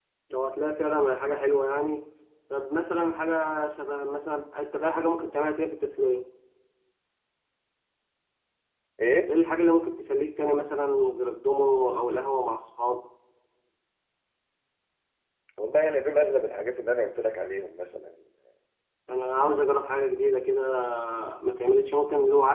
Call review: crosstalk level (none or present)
none